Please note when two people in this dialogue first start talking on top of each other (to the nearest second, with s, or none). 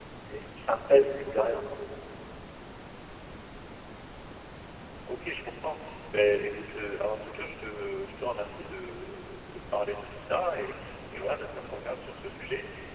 none